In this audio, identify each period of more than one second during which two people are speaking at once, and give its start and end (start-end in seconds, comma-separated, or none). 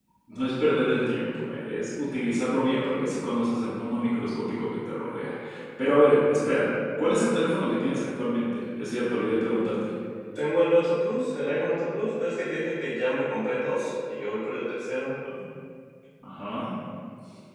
none